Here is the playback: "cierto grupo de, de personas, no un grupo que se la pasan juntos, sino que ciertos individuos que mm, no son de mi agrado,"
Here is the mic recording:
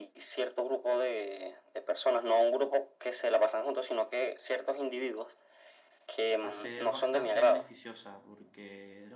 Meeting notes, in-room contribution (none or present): present